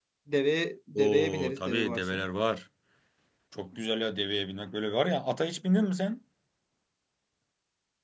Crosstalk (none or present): present